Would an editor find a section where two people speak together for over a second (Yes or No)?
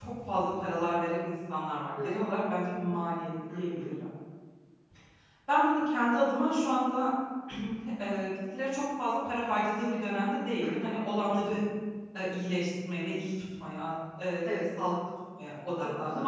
No